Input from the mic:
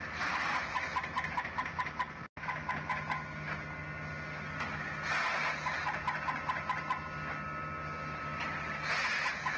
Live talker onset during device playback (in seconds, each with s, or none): none